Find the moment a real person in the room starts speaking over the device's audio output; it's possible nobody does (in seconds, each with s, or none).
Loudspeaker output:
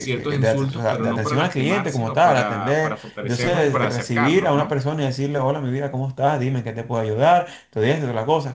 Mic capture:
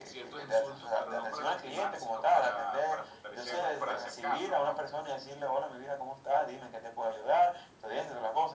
none